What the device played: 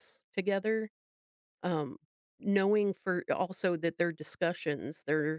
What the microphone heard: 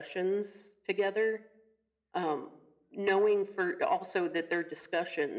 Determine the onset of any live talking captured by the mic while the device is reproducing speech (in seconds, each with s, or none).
none